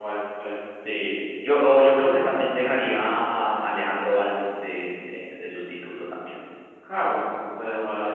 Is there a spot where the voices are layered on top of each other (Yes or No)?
No